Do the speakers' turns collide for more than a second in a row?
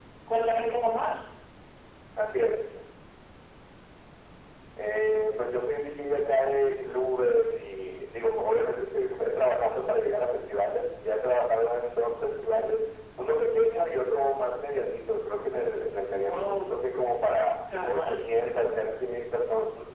No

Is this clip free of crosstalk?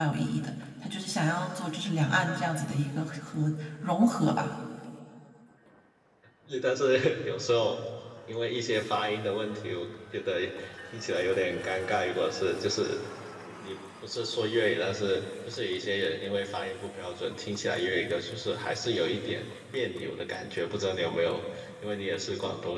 Yes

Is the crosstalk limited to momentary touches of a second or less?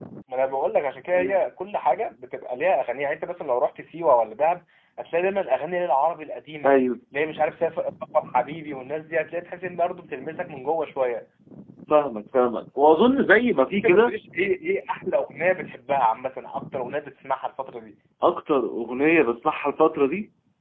Yes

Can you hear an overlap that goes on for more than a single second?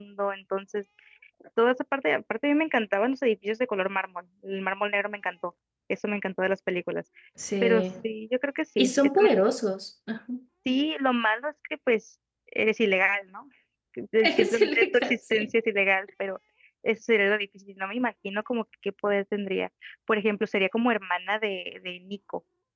Yes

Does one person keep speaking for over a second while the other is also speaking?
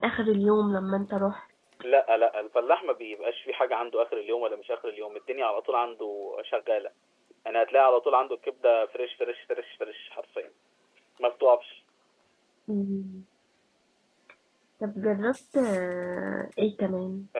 No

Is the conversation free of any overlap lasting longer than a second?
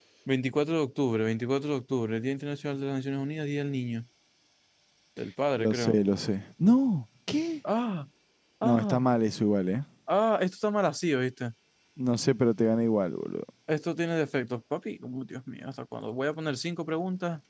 Yes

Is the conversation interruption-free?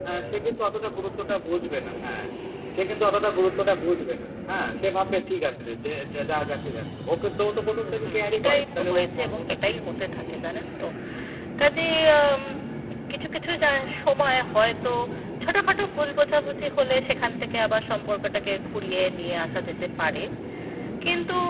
No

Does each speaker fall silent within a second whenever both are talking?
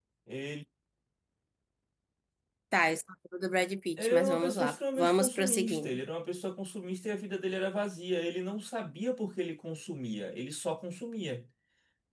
No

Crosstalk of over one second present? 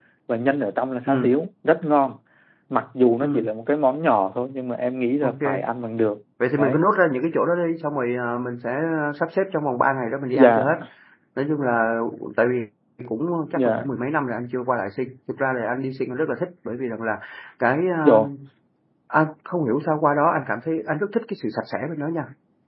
No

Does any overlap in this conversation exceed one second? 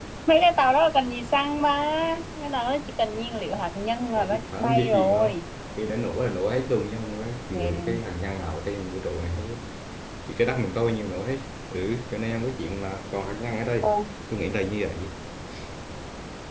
Yes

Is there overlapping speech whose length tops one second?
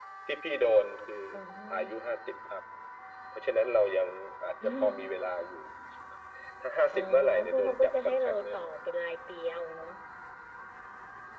Yes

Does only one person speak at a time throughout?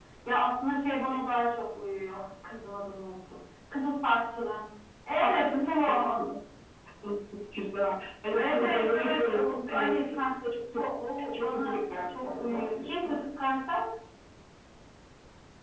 No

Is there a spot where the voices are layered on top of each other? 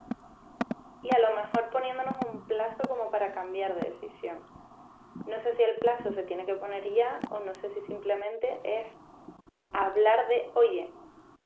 No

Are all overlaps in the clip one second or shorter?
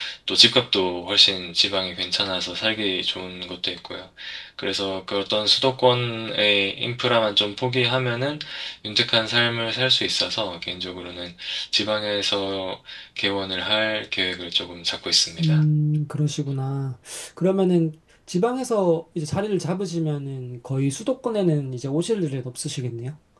Yes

